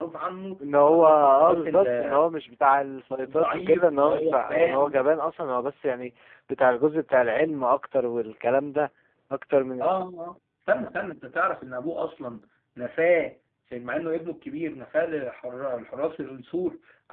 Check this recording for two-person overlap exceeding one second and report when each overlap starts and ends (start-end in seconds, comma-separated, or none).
0.8-2.2, 3.3-4.9